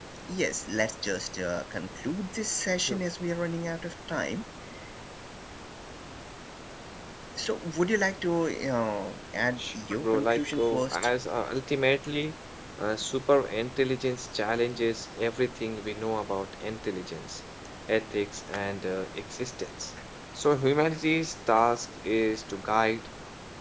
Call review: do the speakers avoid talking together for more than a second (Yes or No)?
No